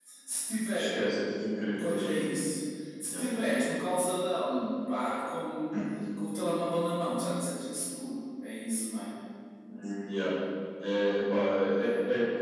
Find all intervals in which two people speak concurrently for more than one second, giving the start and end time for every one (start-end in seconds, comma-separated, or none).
none